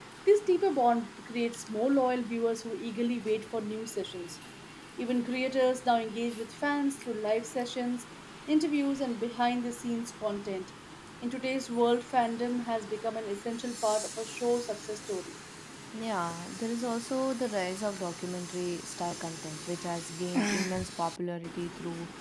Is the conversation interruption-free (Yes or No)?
Yes